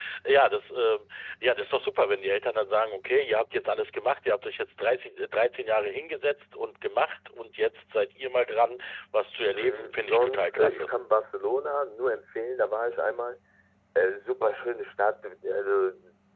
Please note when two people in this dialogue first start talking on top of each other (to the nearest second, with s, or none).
10 s